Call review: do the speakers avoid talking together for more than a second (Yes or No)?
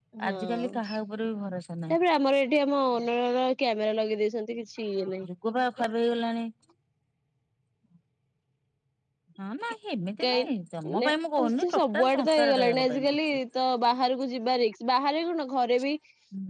No